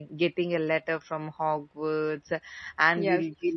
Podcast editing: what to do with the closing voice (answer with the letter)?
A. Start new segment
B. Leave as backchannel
B